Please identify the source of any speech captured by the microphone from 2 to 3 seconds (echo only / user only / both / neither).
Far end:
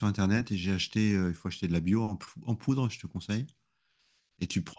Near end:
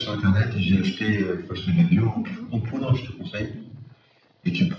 both